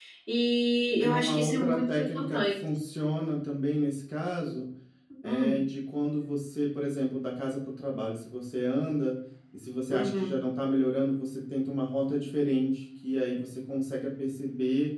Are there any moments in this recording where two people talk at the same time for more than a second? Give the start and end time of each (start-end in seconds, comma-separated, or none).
1.0-2.5